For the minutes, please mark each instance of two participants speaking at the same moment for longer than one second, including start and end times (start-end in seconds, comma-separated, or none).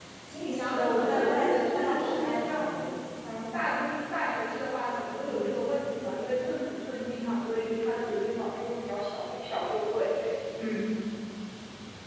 0.6-2.7